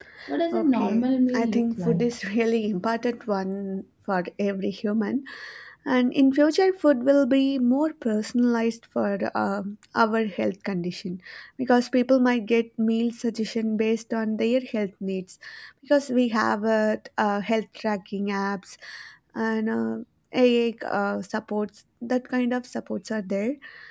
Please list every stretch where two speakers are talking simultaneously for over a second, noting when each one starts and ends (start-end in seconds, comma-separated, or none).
0.5-2.0